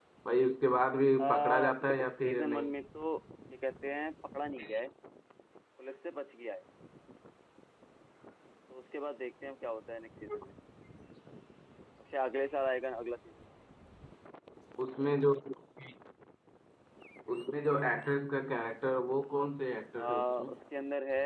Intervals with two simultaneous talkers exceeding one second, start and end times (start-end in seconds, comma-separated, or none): 1.2-2.7